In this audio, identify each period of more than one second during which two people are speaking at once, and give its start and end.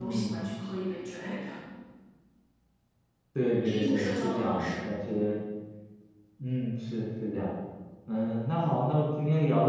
3.6-5.3

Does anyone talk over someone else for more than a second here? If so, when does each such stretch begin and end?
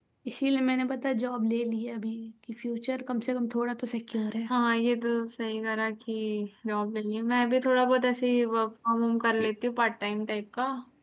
none

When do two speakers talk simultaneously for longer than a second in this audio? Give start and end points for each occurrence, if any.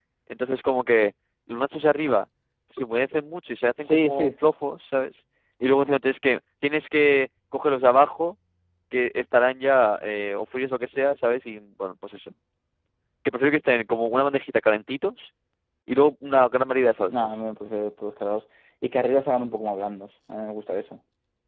none

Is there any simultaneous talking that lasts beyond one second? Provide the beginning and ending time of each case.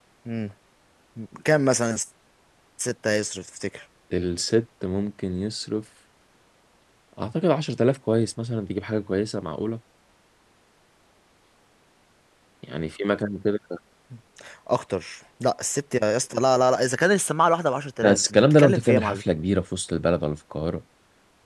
18.0-19.2

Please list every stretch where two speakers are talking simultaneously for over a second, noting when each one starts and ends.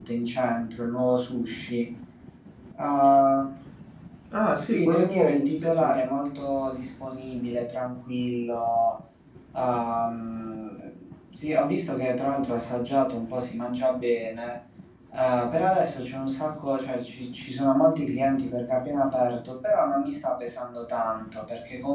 4.6-5.9

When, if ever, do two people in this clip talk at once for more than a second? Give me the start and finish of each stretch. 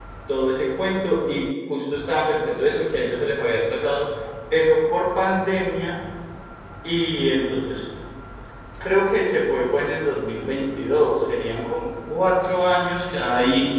none

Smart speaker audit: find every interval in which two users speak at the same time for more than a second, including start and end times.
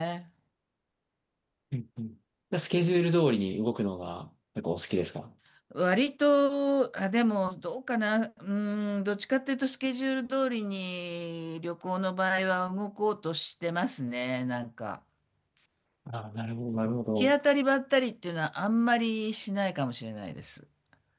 none

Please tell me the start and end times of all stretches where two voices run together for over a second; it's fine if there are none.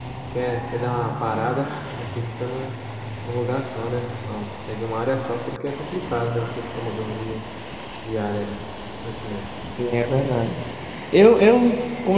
none

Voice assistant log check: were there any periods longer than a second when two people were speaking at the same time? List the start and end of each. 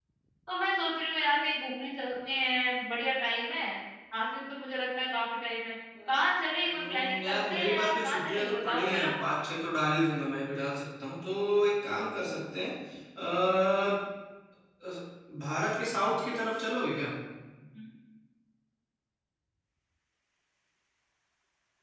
6.6-9.1

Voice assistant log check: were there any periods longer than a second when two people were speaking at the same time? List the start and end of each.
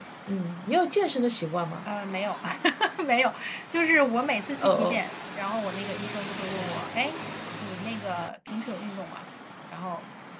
none

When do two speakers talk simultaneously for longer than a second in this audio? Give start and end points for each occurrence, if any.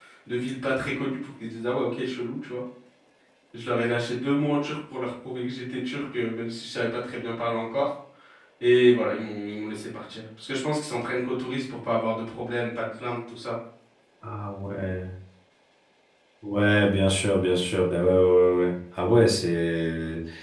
none

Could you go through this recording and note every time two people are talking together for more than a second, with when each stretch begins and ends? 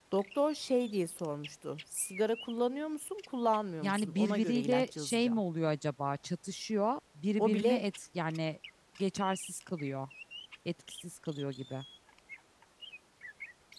3.8-5.4

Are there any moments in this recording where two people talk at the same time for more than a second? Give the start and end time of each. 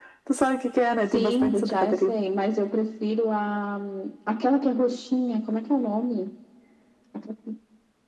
1.0-2.2

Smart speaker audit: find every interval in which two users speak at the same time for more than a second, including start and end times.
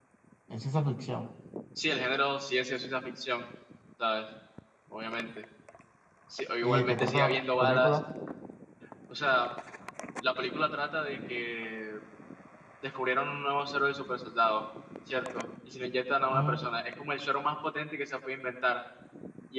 6.6-8.0

